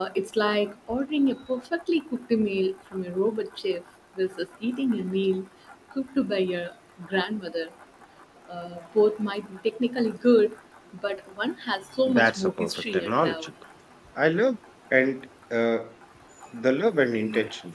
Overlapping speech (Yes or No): Yes